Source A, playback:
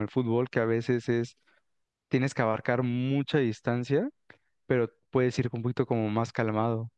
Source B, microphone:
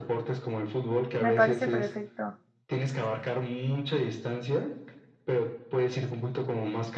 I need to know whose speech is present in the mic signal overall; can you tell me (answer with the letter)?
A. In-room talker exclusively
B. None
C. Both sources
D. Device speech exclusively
C